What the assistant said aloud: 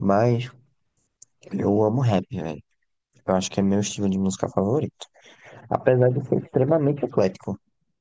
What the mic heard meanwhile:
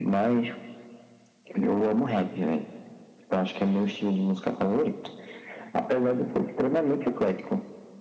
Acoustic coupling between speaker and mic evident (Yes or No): Yes